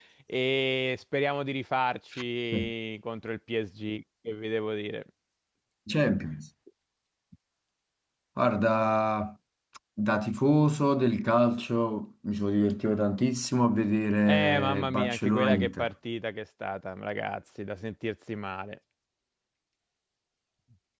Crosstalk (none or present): present